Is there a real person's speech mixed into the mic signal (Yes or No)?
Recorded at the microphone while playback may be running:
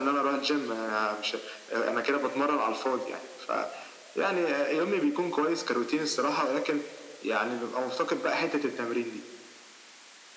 No